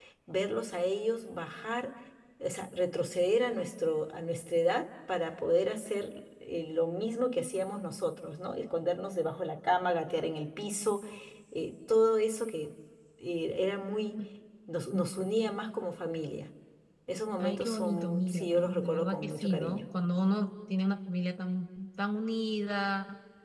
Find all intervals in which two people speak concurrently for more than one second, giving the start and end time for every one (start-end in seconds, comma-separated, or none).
17.4-19.9